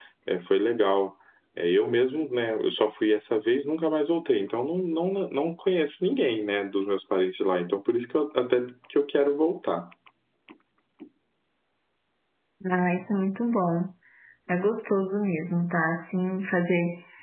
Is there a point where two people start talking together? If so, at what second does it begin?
none

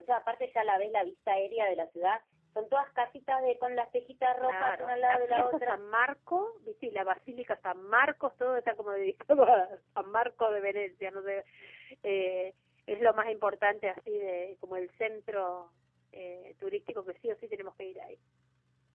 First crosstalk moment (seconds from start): 4.4 s

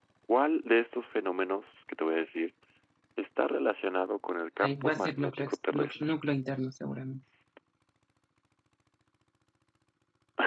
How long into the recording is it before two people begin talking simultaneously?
4.6 s

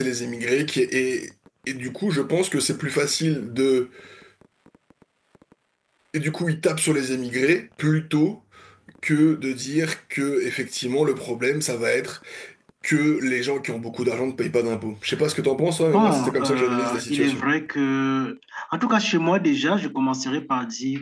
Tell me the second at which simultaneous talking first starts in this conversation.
15.8 s

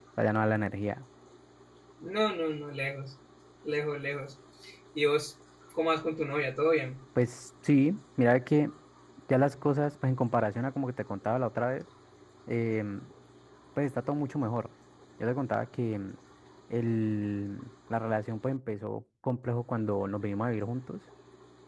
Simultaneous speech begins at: none

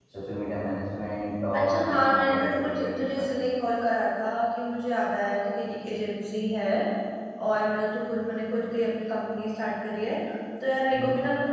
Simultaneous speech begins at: 1.5 s

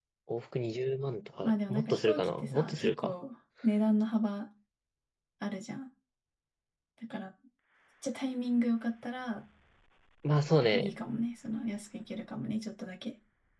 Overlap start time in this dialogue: 1.4 s

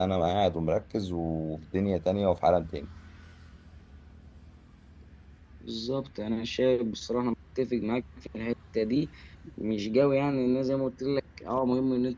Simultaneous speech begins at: none

